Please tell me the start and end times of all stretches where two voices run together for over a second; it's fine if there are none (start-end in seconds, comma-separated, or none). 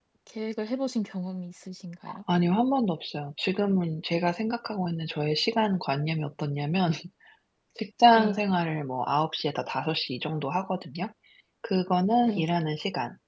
none